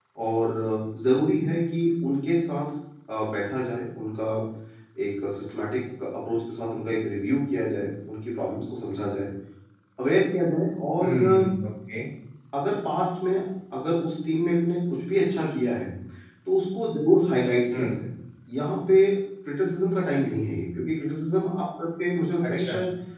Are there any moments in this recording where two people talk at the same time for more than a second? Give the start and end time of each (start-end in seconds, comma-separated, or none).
none